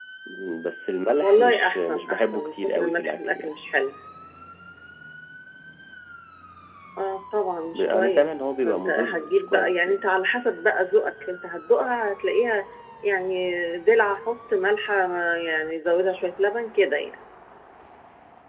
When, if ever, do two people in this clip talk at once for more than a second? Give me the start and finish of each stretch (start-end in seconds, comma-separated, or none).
1.2-3.5, 7.7-10.0